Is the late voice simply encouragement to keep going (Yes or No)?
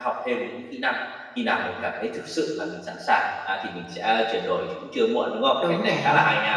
No